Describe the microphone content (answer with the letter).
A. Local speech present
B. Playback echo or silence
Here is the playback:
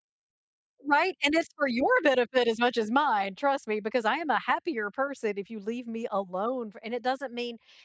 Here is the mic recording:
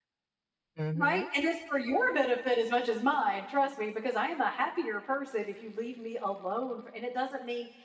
A